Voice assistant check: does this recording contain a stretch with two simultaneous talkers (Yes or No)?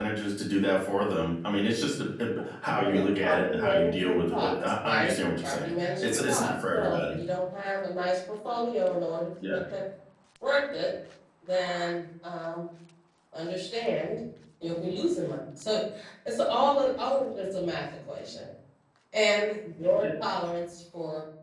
Yes